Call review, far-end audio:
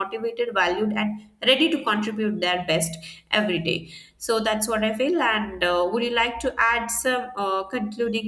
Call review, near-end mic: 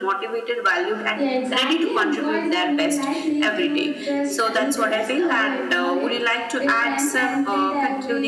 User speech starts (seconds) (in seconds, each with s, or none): 1.1 s